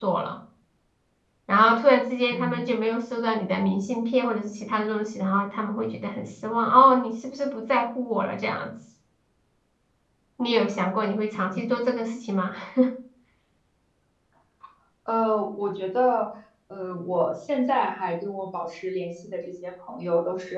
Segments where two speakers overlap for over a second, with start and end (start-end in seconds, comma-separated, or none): none